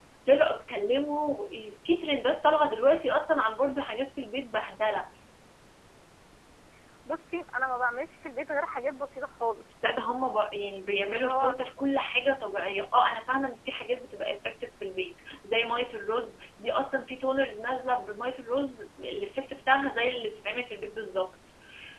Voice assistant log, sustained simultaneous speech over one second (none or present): none